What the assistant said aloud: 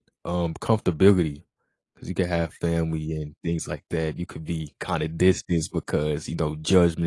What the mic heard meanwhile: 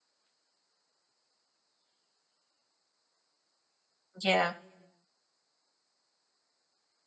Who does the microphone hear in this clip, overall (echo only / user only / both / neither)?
user only